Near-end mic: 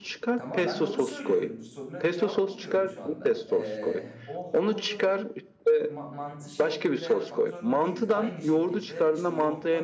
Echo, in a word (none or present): present